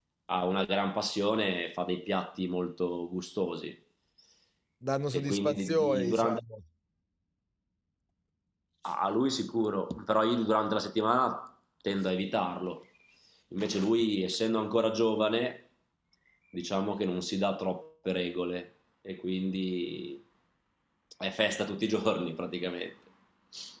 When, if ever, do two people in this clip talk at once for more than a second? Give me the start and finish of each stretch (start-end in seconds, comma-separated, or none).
5.1-6.4